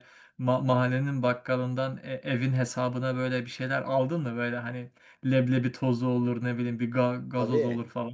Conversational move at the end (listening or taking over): taking over